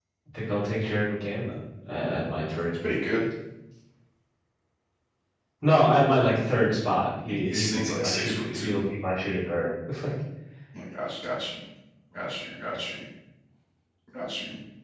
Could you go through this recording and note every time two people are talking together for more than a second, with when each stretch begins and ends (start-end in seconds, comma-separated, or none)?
7.2-8.7